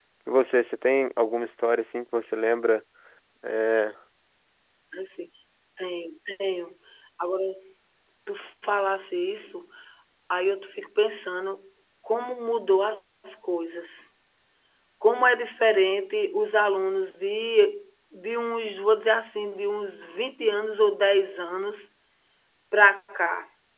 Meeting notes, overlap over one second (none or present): none